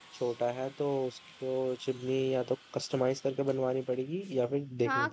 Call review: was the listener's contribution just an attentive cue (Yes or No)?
No